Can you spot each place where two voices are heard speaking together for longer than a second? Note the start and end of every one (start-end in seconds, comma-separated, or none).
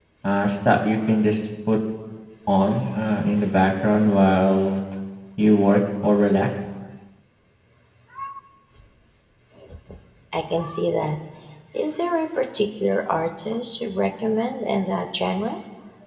none